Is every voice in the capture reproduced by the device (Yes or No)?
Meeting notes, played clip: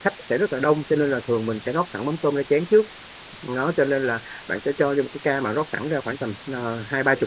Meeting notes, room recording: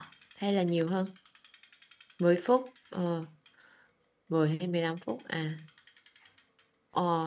No